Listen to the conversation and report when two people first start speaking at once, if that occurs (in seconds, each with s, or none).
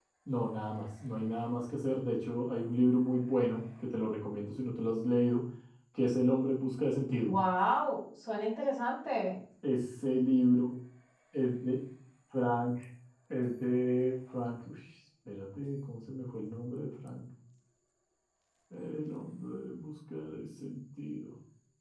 none